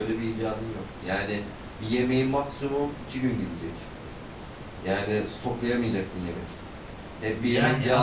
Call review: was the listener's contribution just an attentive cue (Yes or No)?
Yes